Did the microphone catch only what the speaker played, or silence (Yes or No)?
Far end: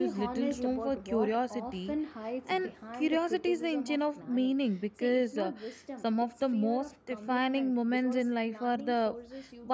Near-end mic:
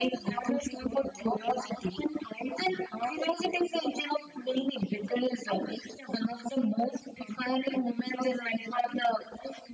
Yes